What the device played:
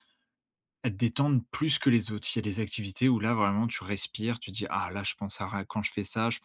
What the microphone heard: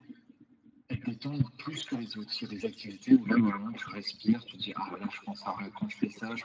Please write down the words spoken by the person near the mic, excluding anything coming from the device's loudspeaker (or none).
none